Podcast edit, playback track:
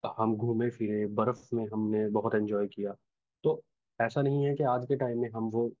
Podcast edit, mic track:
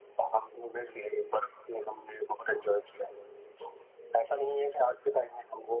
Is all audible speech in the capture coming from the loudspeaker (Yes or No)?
Yes